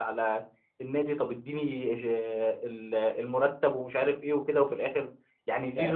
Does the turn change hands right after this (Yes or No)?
Yes